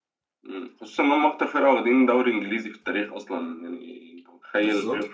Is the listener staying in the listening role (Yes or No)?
Yes